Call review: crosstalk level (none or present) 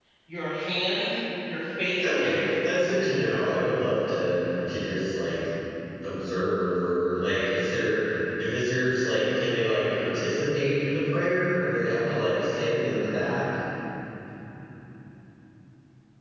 present